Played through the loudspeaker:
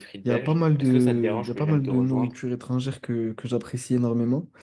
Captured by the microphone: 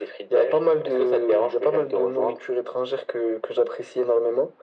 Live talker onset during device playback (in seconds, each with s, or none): none